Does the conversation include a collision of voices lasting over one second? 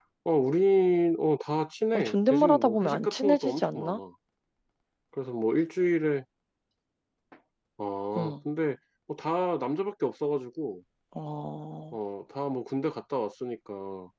Yes, from 1.9 s

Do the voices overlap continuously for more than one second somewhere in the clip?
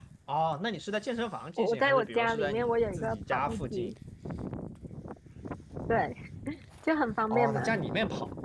Yes, from 1.6 s

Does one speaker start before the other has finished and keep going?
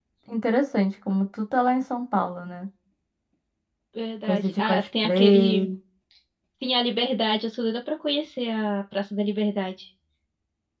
Yes, from 4.2 s

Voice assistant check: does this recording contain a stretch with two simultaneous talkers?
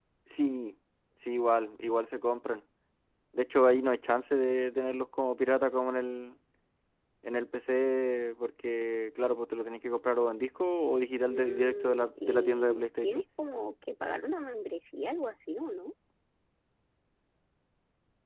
Yes, from 11.3 s

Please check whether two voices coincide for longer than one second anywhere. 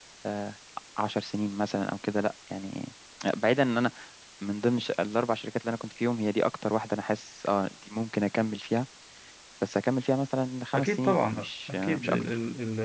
Yes, from 10.7 s

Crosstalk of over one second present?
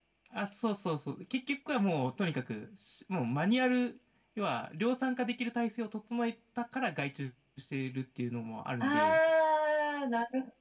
No

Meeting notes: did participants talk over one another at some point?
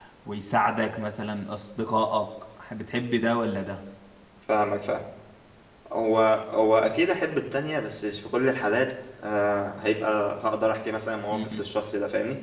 No

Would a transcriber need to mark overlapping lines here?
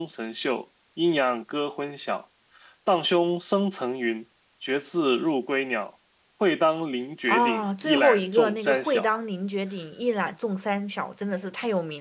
Yes, from 7.3 s

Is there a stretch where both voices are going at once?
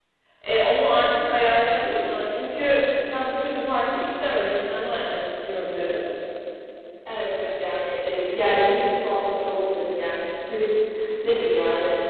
No

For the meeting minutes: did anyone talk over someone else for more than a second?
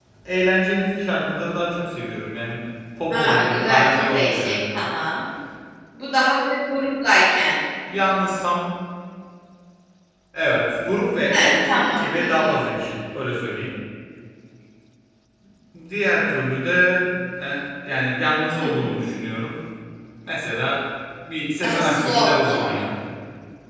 Yes, from 3.1 s

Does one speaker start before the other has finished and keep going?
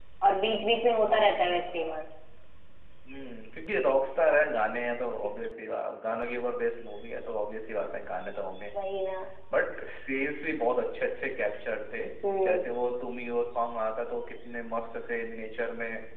Yes, from 0.7 s

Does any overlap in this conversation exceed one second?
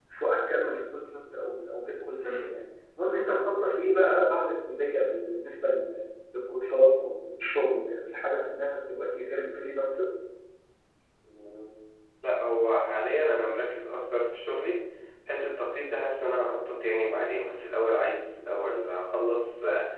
No

